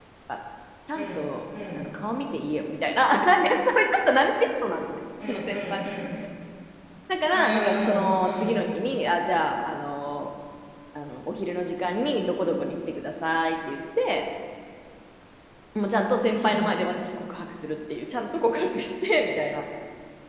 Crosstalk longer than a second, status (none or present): present